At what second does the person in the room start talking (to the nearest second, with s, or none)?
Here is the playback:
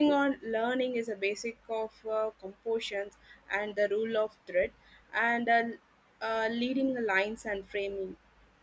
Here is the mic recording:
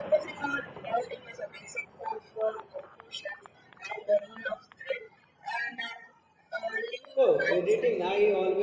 7 s